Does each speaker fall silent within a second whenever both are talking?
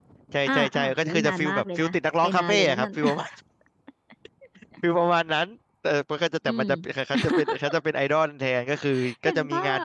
No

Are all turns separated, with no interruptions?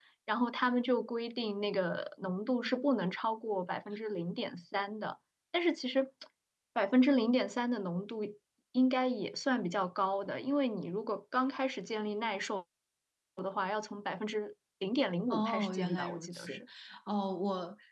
No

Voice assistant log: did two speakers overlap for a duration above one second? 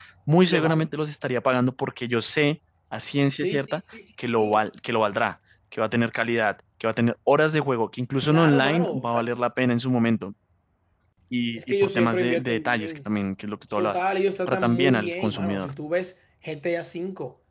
Yes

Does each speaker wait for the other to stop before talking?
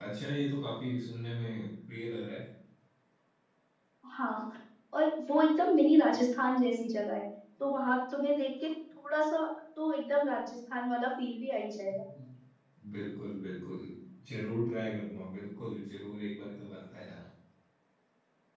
Yes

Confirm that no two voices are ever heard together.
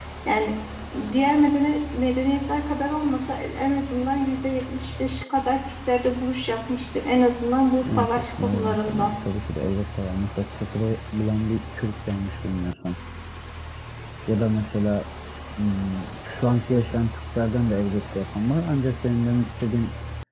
No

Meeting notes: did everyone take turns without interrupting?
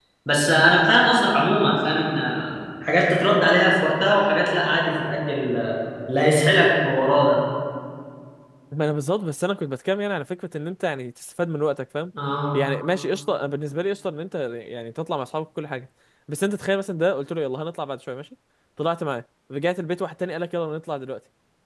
Yes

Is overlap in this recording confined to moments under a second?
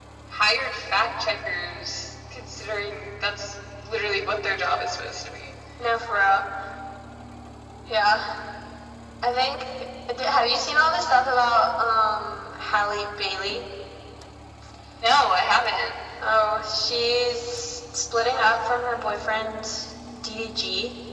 Yes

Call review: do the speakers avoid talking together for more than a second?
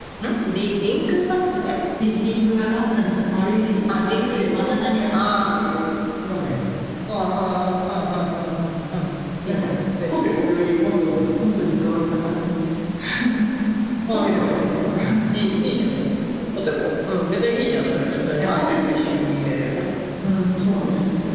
No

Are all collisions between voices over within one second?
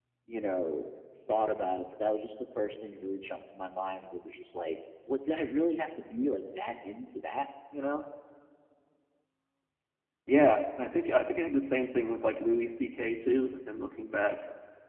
Yes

